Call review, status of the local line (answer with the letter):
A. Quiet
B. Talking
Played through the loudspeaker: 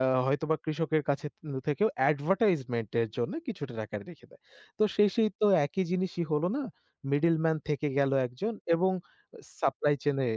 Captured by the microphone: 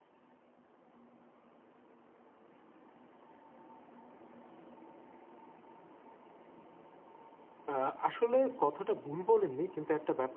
B